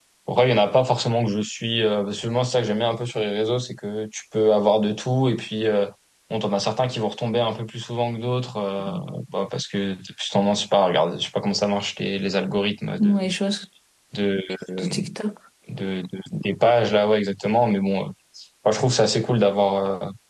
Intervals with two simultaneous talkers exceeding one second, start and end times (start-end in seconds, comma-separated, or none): none